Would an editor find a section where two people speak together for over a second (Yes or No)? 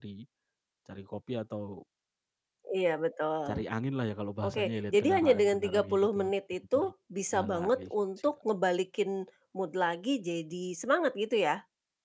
Yes